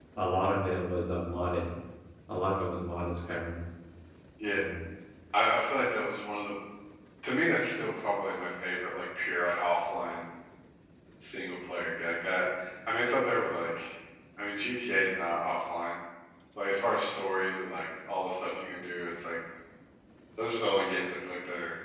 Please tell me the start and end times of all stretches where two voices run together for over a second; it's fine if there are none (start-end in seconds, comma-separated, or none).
none